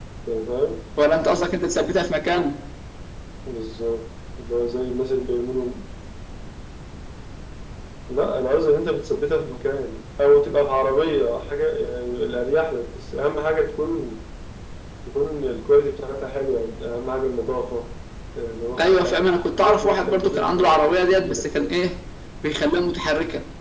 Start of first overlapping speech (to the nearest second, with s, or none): 19 s